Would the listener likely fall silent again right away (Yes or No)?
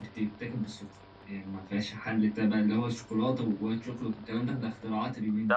No